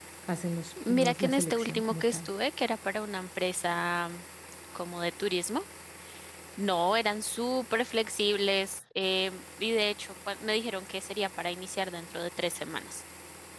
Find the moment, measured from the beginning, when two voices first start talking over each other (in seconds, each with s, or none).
0.9 s